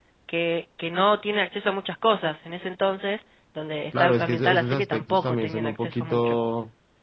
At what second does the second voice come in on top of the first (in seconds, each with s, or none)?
3.9 s